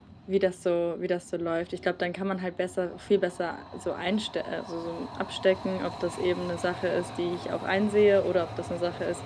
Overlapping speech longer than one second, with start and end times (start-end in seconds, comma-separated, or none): none